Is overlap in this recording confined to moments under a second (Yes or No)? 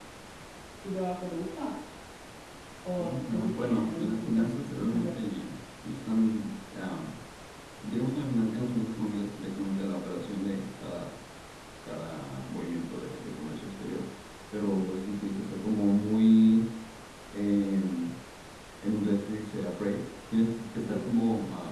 No